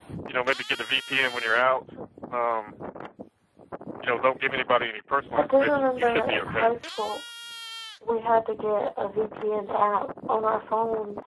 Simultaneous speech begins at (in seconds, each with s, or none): 5.3 s